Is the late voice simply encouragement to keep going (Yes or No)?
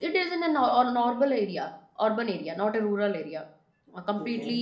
Yes